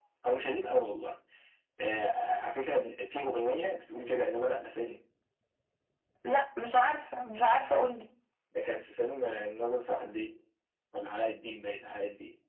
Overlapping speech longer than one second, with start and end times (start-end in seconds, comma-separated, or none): none